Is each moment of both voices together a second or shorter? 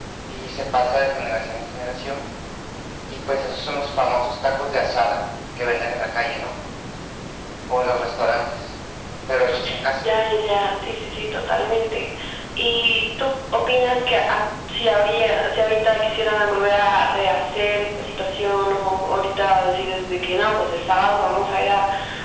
Yes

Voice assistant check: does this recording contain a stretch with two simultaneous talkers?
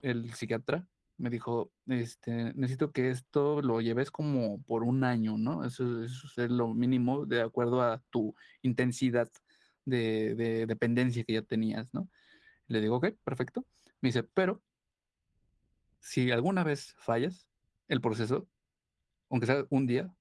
No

